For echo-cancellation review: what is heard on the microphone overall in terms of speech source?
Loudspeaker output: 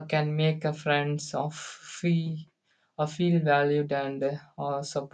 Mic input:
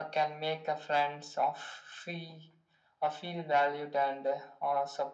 echo only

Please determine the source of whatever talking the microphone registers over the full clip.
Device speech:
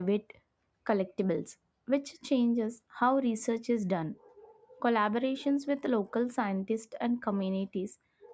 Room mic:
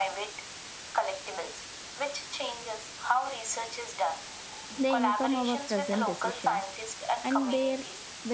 both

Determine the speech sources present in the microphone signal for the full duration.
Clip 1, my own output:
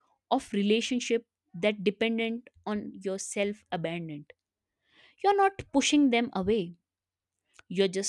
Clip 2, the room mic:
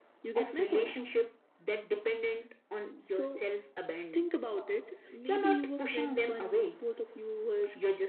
both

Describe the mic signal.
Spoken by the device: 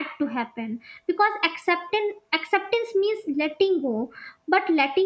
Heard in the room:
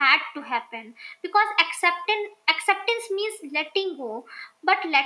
echo only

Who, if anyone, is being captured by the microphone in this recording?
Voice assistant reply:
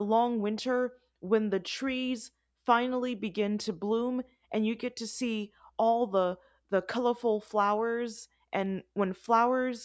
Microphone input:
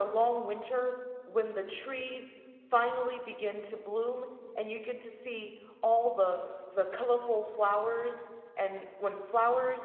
echo only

